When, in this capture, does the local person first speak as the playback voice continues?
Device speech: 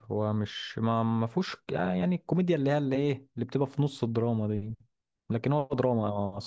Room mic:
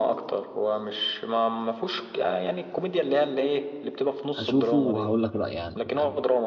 4.3 s

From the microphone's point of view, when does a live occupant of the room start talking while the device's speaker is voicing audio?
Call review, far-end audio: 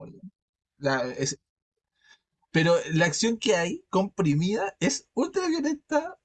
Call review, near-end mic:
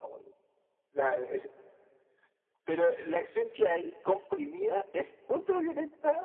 none

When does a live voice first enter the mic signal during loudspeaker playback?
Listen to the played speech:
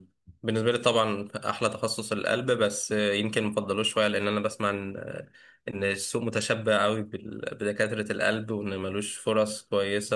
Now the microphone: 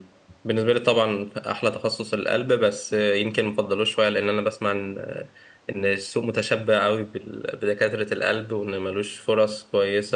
none

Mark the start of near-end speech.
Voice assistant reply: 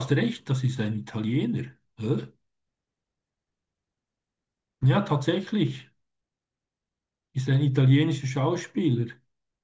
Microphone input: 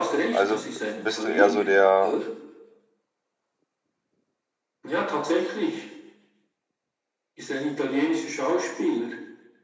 0.3 s

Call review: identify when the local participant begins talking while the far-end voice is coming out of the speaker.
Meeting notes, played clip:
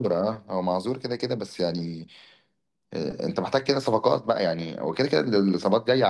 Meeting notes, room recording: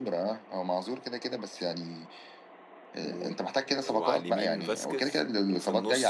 2.9 s

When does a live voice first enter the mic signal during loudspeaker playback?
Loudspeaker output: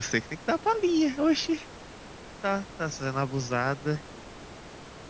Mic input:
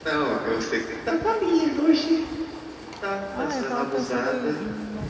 3.3 s

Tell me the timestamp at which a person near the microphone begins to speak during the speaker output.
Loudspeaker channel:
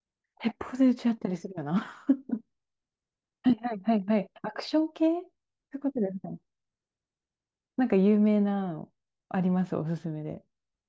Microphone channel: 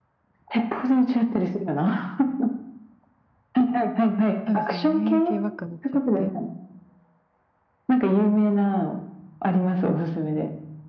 4.5 s

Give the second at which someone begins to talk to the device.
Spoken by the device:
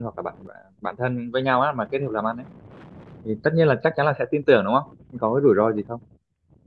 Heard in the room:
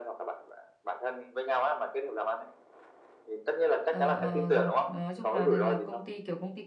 3.9 s

